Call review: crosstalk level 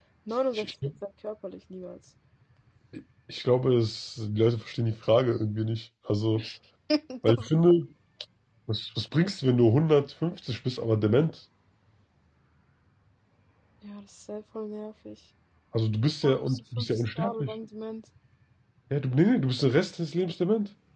present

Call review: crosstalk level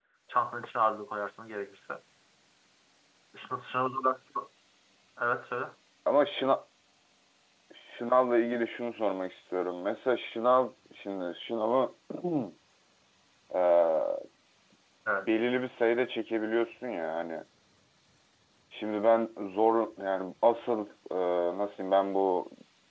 none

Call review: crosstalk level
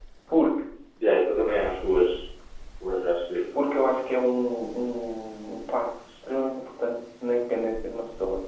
none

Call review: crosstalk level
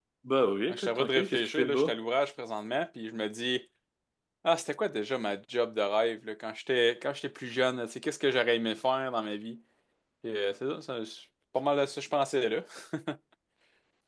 present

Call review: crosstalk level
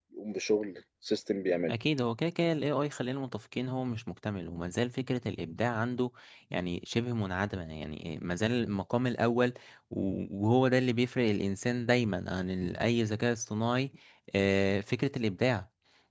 none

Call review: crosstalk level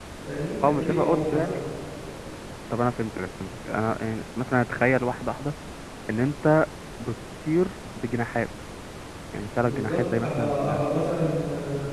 present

